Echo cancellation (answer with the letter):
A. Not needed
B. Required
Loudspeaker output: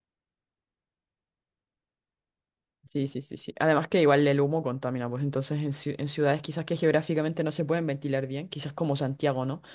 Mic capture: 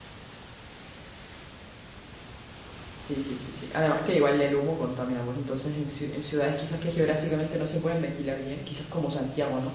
B